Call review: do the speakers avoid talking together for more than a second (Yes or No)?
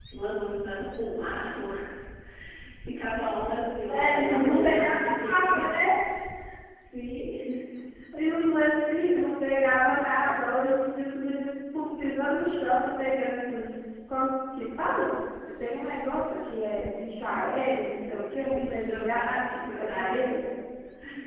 No